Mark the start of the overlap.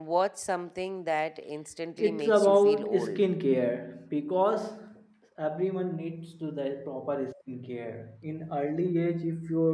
2.0 s

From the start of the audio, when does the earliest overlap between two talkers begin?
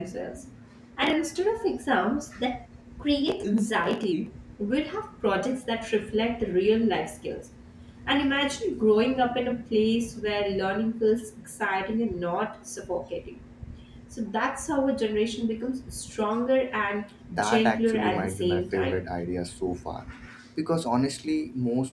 17.3 s

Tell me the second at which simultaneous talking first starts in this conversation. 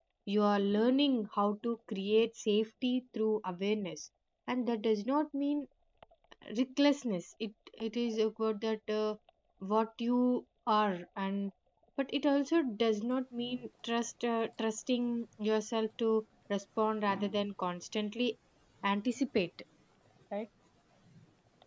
none

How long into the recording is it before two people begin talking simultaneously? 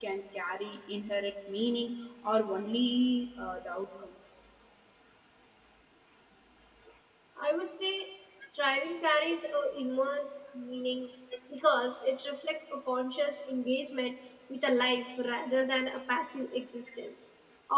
none

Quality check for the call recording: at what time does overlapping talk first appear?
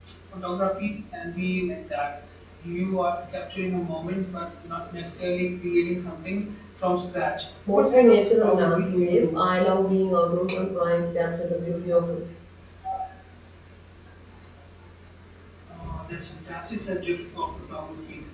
7.7 s

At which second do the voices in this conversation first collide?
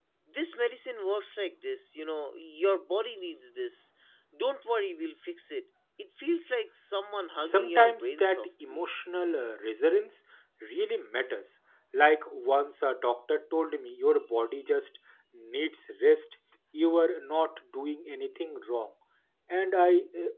7.4 s

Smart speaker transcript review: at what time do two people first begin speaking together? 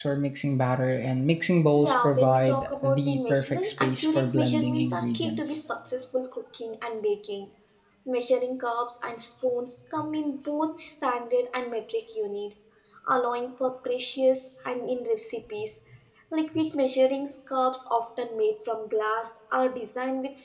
1.8 s

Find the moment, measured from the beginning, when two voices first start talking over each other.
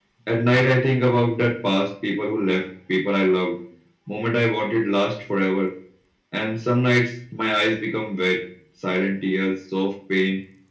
none

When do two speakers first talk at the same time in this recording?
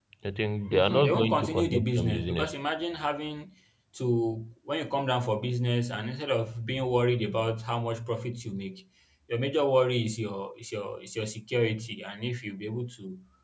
0.7 s

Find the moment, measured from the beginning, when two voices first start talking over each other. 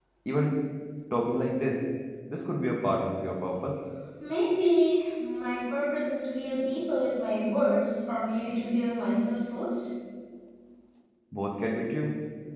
none

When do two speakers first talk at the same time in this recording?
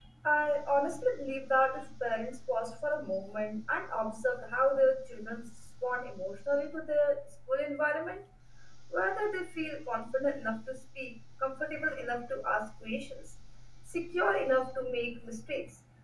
none

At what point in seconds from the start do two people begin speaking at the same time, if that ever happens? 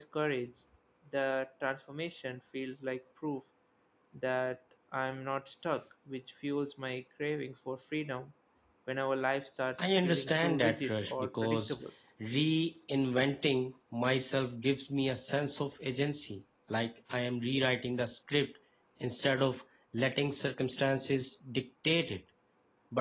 9.8 s

